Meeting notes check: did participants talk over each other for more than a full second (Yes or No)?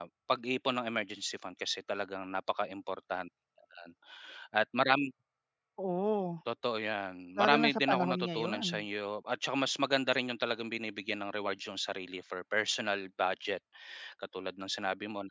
Yes